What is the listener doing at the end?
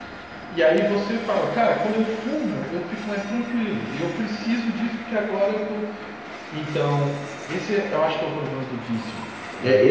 taking over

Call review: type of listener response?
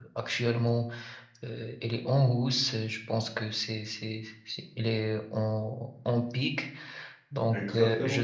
listening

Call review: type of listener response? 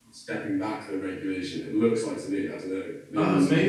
taking over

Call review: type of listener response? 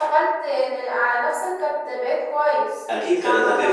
taking over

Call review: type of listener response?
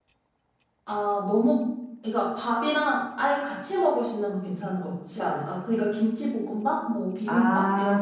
taking over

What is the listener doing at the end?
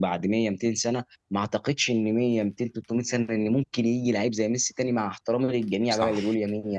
listening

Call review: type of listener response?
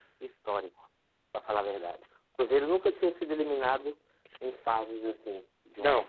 taking over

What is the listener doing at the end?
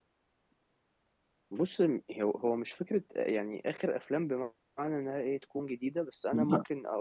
listening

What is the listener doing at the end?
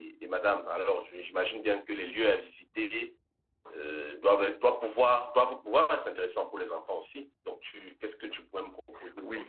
taking over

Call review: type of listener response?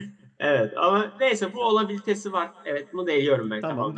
taking over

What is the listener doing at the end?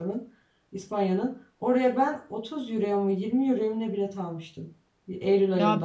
taking over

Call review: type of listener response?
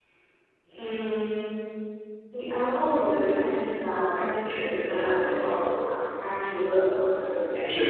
taking over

